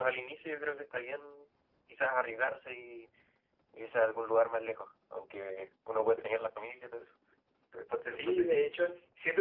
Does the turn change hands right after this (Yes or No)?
Yes